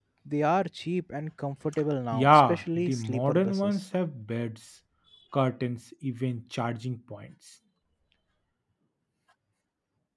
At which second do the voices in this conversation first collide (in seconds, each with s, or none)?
2.1 s